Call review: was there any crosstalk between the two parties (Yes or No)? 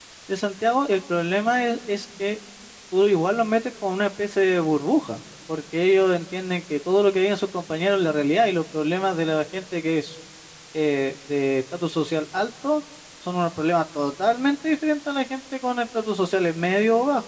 No